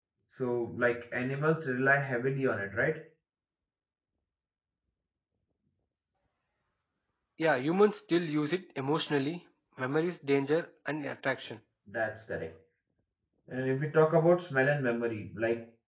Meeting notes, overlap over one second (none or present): none